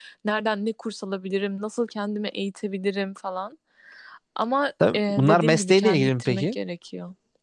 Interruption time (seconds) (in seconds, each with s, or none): 4.9 s